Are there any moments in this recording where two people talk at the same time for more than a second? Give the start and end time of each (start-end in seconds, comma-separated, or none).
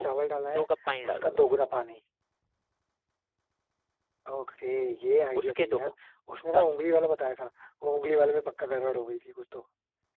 none